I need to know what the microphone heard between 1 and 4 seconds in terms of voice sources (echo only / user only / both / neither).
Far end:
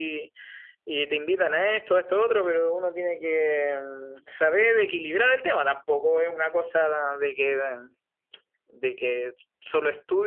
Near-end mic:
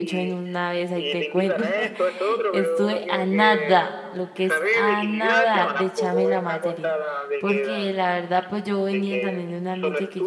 both